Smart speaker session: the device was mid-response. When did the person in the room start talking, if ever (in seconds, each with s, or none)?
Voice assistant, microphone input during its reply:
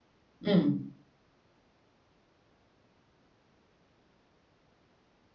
0.5 s